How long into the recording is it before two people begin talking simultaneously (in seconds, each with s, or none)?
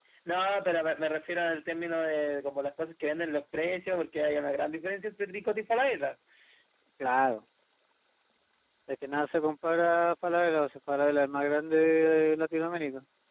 none